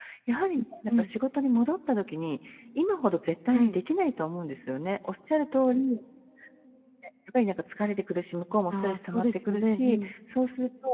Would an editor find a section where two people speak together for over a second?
Yes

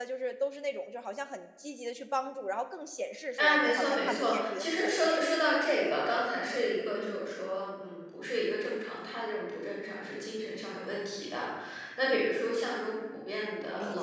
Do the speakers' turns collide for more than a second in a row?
Yes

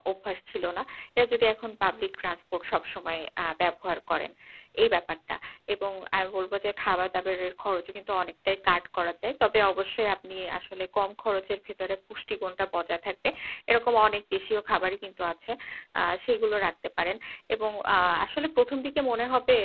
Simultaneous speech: No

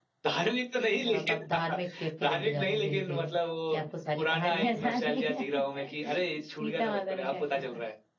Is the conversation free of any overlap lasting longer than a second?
No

